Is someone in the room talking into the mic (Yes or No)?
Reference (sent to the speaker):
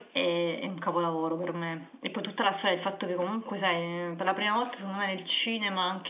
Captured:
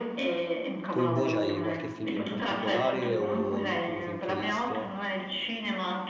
Yes